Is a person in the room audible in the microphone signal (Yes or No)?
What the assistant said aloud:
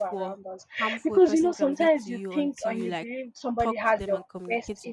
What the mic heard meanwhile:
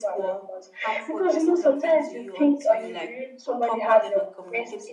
No